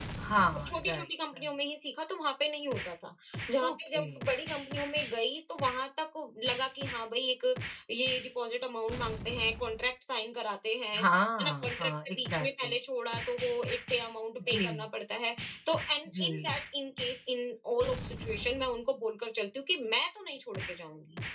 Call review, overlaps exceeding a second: present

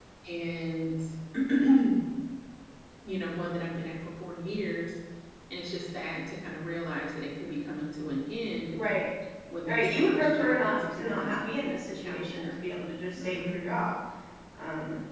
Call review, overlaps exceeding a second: present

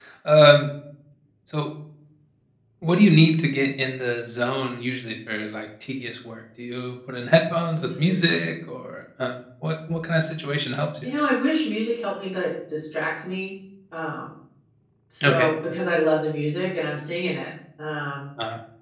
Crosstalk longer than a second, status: none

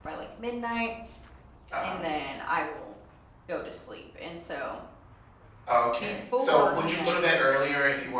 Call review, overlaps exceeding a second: present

